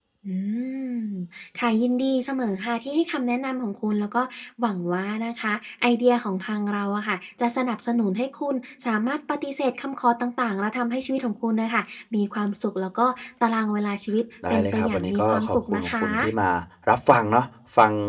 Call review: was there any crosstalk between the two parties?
Yes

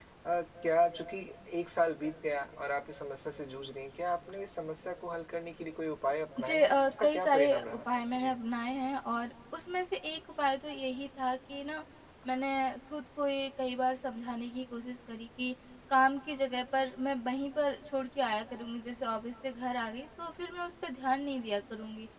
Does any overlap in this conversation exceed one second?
Yes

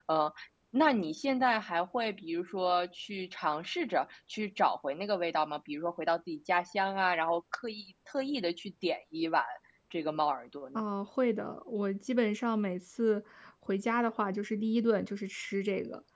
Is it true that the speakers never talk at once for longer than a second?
Yes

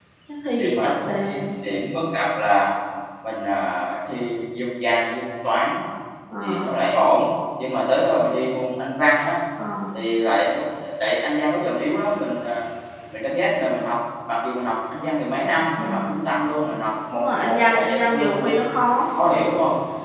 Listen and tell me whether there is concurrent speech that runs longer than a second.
Yes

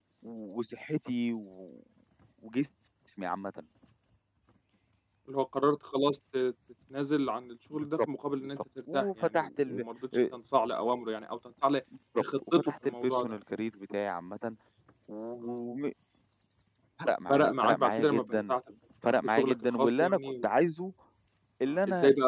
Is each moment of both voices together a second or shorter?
No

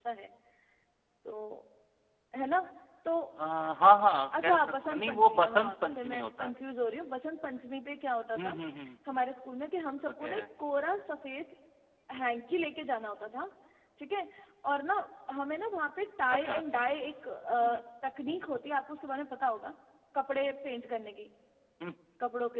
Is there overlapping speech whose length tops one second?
Yes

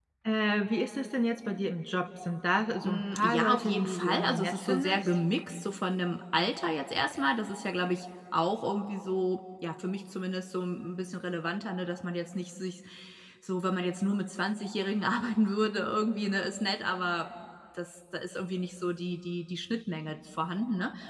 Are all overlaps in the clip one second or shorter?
No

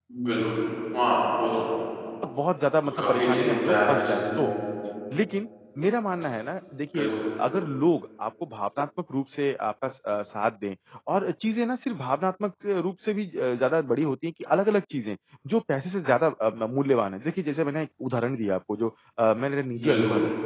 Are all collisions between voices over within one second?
No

